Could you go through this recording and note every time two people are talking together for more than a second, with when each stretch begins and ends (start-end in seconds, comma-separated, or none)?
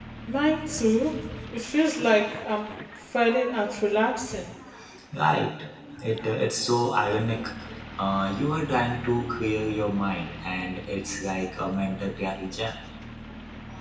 none